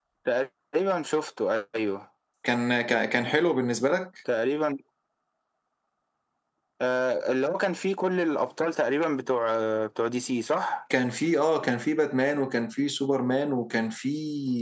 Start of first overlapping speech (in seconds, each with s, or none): none